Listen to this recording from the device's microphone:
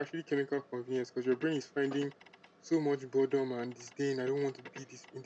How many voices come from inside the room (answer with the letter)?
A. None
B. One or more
A